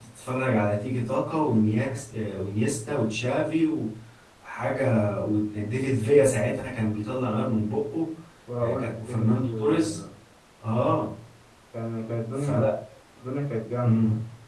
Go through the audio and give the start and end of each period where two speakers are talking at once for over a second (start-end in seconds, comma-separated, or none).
8.6-10.0